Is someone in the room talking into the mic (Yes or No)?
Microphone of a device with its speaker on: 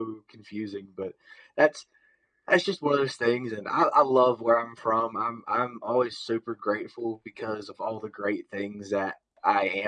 No